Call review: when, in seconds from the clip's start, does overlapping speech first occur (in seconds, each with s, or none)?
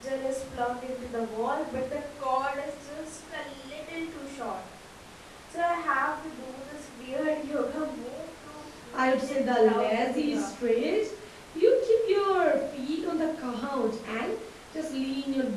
9.0 s